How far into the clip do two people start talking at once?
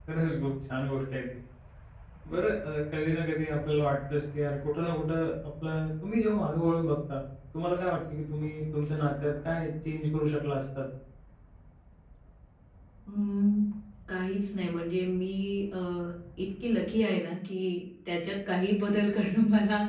none

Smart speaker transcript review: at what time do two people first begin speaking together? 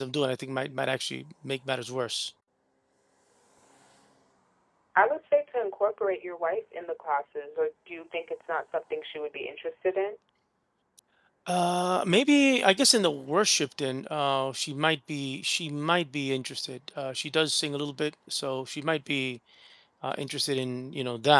none

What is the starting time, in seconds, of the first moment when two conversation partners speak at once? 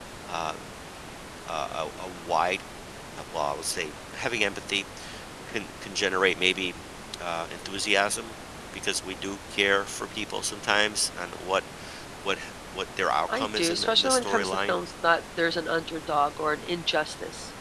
13.3 s

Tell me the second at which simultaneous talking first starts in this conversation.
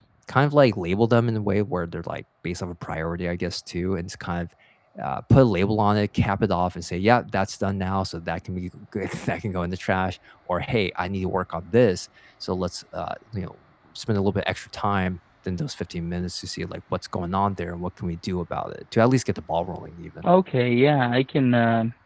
none

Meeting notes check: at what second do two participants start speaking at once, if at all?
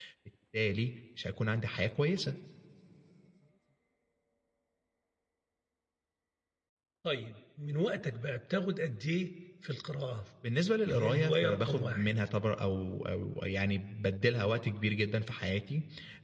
10.9 s

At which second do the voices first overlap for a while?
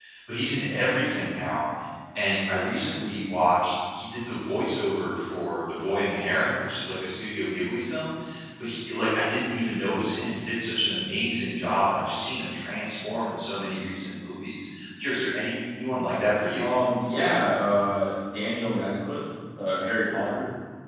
none

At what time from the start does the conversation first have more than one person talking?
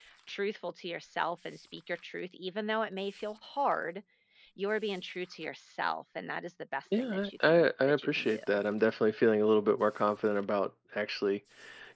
6.9 s

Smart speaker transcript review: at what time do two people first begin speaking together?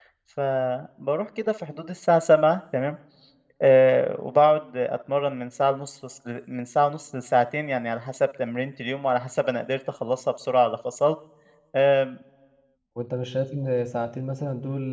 none

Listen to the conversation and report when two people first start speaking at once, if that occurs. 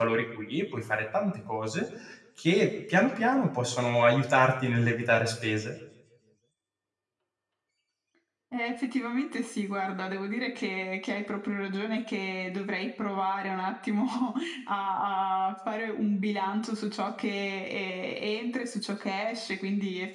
none

